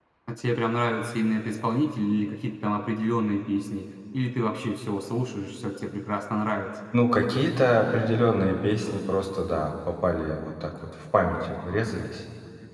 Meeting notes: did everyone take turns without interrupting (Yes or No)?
Yes